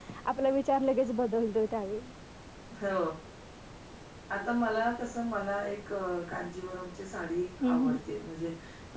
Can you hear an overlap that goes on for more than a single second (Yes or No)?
No